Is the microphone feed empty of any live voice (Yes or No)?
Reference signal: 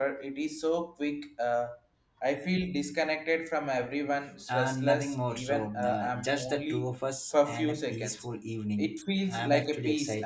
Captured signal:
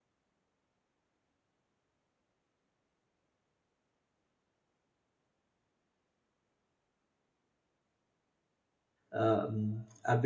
No